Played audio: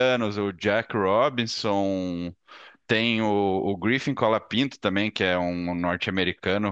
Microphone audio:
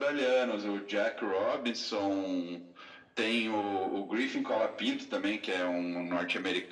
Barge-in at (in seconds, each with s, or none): none